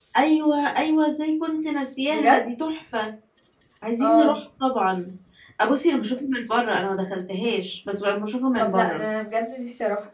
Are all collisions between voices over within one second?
Yes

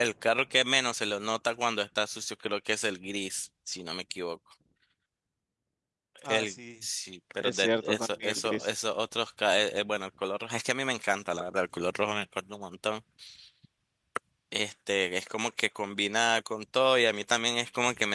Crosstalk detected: Yes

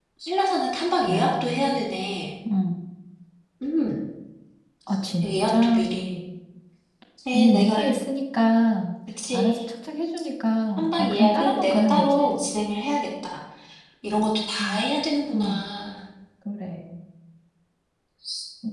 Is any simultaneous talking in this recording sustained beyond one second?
Yes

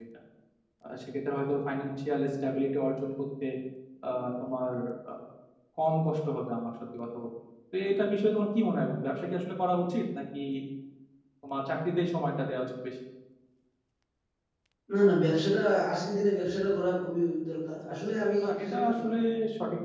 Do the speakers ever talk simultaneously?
Yes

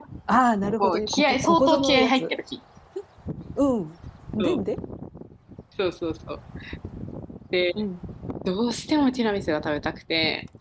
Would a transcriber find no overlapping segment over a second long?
No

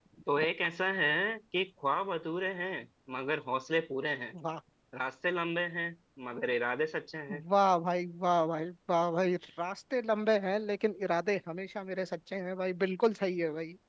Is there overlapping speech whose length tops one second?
No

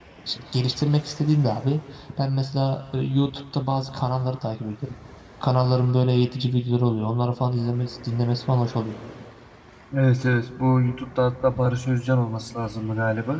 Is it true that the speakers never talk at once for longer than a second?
Yes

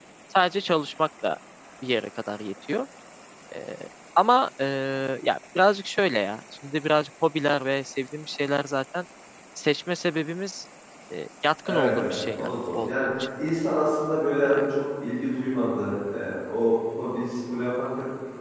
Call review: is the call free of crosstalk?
No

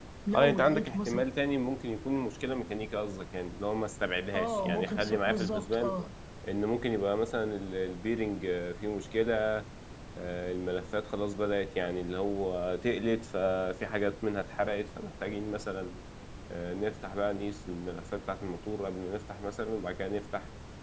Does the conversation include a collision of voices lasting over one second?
Yes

